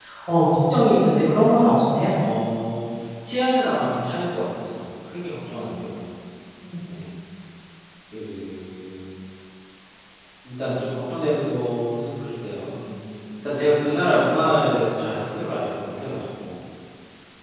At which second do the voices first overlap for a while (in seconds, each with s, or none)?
none